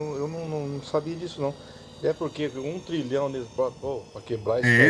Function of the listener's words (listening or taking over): taking over